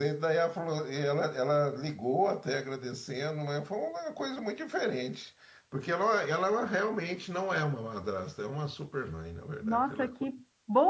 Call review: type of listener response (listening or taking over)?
taking over